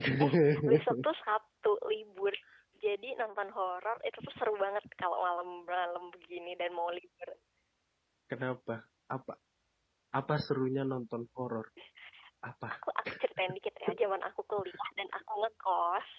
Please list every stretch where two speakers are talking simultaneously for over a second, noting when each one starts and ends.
none

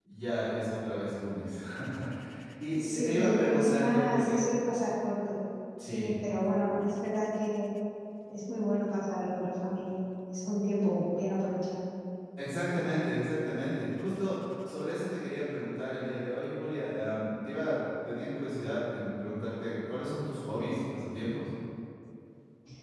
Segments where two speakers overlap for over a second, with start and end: 2.8-4.5

